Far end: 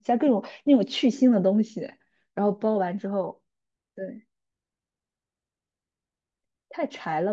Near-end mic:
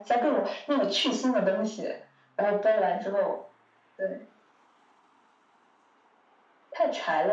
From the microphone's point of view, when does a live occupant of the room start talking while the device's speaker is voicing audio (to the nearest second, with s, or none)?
none